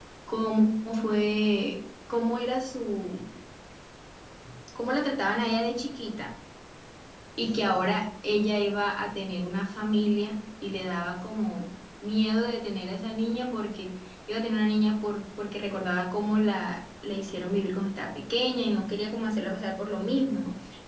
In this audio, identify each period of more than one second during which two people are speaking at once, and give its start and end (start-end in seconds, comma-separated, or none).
none